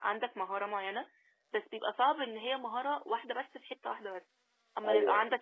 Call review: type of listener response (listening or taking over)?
taking over